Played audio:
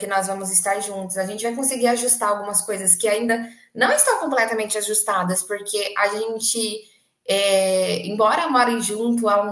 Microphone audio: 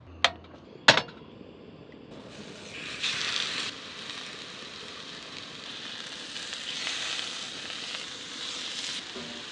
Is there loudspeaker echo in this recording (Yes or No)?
No